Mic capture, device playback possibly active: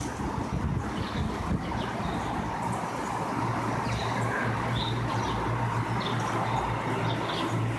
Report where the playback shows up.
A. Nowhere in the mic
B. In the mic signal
A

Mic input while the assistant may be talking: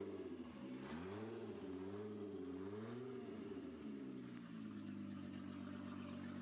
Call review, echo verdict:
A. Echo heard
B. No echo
B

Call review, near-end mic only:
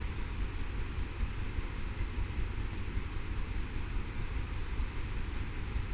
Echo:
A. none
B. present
A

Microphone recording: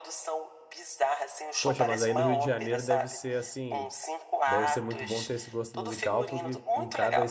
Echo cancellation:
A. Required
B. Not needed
A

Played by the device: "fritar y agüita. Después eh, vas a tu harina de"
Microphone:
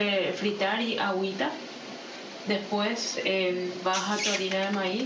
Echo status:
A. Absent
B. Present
B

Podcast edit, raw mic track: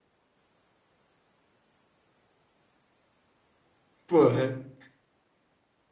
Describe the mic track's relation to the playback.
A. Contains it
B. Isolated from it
B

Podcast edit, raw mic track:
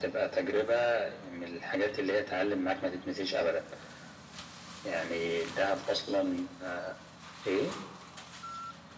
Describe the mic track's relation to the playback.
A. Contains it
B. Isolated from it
A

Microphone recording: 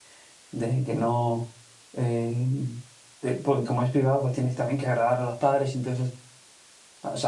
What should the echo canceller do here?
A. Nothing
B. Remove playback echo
A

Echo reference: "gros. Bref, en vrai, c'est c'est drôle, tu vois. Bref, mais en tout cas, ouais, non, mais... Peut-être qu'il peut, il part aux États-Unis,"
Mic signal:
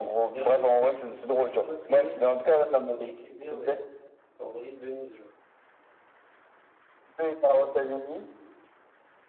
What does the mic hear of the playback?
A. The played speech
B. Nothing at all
A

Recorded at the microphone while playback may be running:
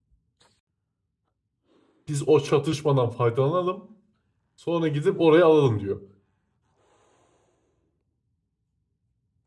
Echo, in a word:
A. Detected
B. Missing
B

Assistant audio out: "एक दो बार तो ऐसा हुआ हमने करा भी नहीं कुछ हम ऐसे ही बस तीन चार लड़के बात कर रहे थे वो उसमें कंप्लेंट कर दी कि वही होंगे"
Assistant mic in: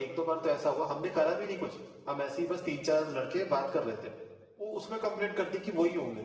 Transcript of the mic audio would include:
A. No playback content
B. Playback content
B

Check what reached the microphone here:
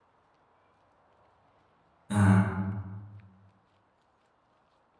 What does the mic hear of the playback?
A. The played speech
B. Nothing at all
B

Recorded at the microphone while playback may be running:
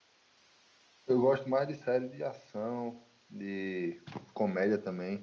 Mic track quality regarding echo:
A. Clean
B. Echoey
A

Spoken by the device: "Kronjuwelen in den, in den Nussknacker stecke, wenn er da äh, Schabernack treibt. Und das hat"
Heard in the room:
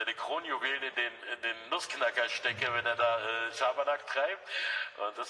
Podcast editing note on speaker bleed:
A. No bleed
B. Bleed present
B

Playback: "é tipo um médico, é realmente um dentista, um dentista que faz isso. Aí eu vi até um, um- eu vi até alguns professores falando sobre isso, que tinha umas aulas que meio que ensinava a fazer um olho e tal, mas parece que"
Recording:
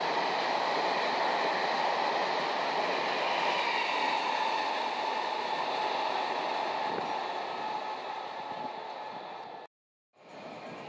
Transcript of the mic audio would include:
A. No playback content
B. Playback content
A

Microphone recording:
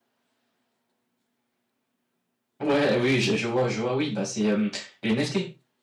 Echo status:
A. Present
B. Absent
B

